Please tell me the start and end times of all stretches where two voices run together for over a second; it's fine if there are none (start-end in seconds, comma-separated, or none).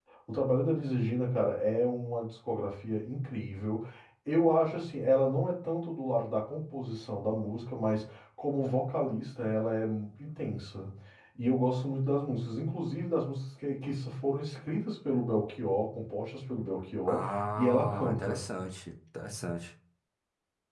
17.1-18.4